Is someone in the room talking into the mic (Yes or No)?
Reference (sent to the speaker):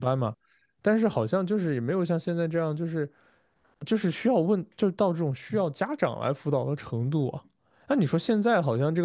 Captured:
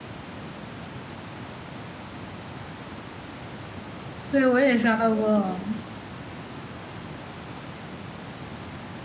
Yes